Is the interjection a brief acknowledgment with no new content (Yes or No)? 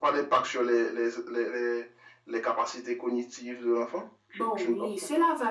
No